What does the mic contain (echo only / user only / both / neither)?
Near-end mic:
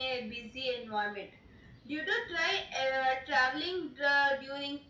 echo only